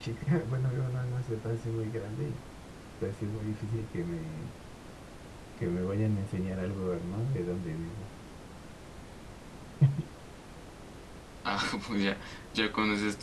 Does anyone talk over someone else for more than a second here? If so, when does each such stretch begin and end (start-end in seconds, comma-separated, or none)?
none